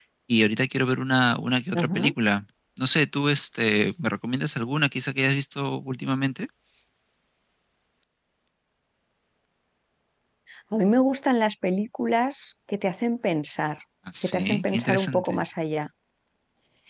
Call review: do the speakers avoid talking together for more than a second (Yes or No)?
No